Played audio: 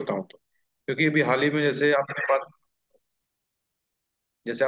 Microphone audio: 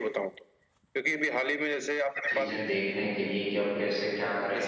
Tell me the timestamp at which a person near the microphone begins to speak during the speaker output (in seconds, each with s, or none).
2.3 s